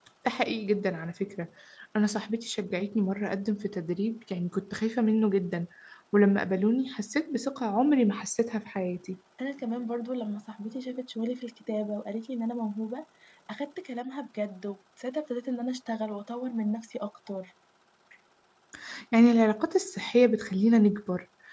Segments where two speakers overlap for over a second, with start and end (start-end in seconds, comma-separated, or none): none